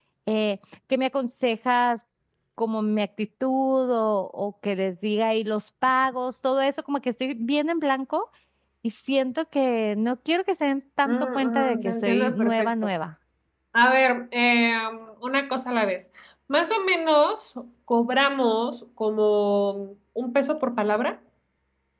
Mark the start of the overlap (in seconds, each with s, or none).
11.1 s